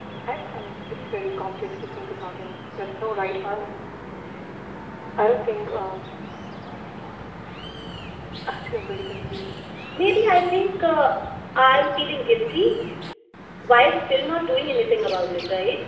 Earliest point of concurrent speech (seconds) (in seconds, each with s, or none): none